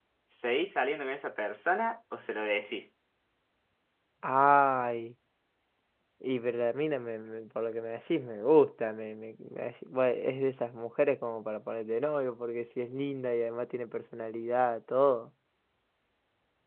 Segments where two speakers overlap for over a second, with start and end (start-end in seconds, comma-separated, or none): none